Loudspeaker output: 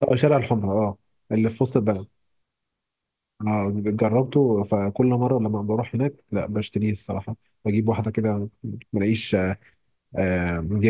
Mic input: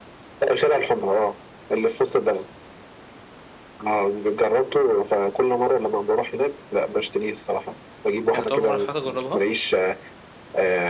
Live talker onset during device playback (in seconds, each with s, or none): 8.3 s